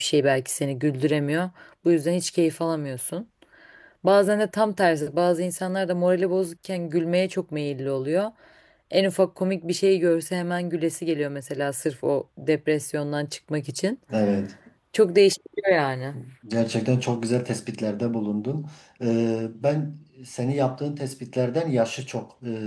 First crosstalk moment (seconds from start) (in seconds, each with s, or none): none